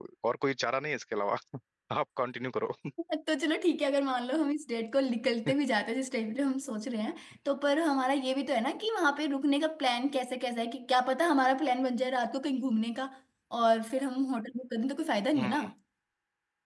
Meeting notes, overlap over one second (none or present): none